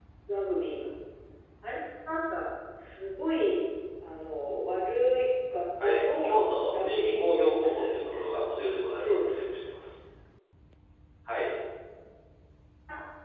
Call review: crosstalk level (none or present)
present